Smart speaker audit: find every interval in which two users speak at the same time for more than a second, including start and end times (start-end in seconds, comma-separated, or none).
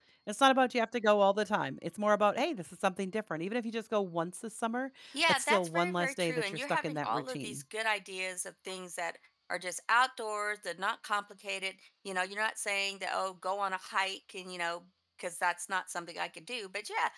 5.3-7.6